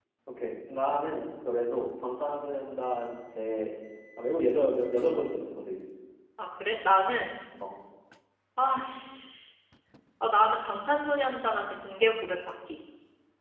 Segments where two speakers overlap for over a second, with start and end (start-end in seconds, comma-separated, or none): none